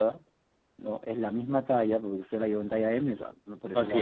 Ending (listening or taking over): listening